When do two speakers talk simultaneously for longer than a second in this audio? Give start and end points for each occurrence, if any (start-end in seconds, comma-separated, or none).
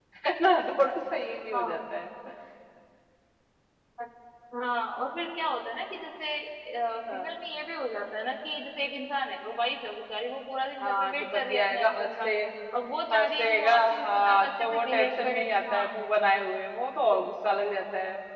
10.8-12.3, 13.1-15.9